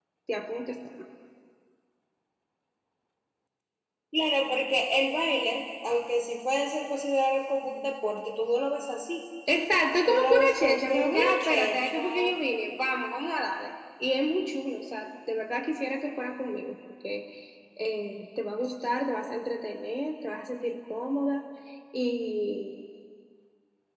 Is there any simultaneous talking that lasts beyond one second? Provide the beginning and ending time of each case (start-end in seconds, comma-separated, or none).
10.1-12.3